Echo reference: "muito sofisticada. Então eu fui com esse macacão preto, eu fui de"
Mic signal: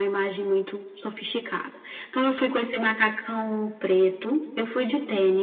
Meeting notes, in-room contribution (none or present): none